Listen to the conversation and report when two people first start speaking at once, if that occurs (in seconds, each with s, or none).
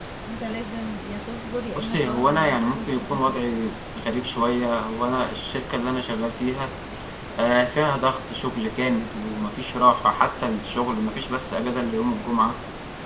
1.8 s